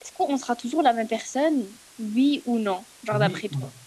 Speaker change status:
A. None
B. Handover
B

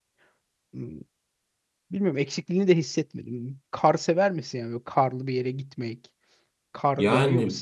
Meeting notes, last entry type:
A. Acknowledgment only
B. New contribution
B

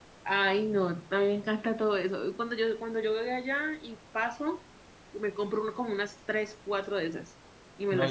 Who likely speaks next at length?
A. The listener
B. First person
A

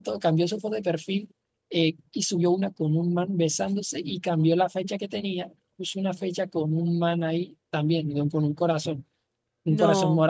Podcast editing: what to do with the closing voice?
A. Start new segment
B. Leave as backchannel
B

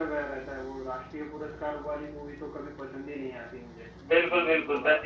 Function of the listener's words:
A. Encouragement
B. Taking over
B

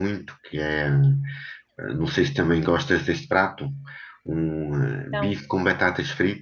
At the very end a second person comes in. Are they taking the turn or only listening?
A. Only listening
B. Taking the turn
A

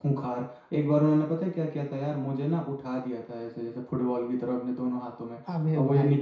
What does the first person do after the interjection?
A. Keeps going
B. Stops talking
A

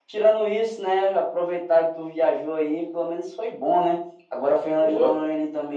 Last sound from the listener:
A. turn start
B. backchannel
B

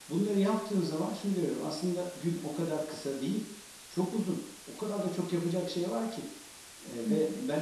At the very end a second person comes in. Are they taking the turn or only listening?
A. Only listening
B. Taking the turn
A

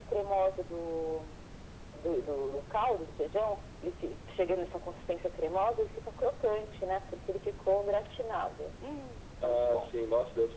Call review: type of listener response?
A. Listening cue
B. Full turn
B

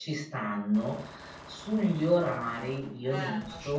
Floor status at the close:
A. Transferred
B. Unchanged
B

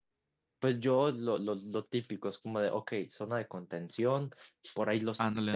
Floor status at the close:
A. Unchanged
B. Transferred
A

